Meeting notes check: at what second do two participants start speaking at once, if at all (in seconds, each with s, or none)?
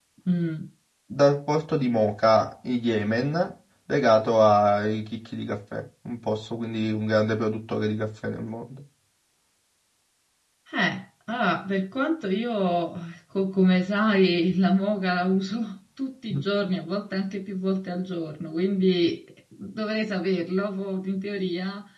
none